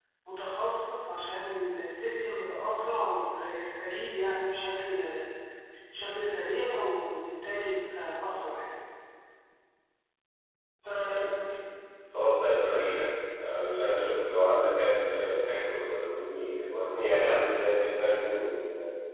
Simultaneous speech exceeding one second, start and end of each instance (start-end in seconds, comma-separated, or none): none